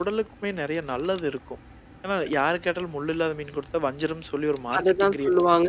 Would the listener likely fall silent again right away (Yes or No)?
No